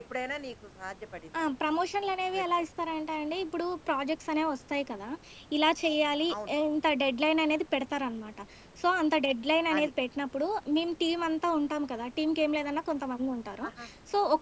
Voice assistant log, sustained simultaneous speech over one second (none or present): none